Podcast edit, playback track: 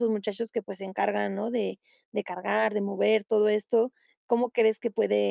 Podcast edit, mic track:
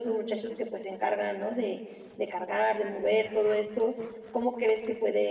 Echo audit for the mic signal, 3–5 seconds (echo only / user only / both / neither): echo only